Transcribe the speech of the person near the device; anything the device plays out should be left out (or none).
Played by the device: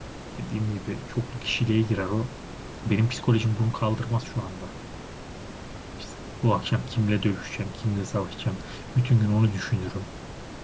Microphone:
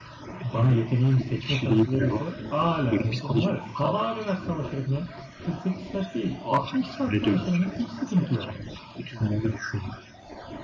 bana yeteneğimi seçme şansı verirse ala o zaman var ya sabaha kadar savaşırım ya. 48 saat değil 60 saat savaşırım ya. Hiç sıkıntı yok.